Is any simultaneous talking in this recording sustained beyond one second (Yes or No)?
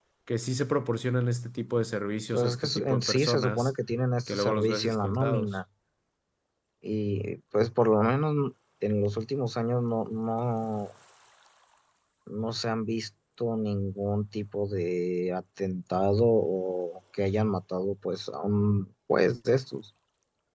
Yes